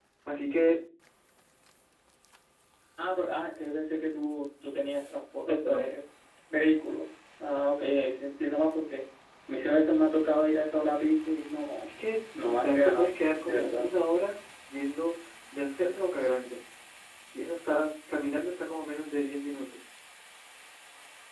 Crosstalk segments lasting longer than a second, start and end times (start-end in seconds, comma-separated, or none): 12.5-13.9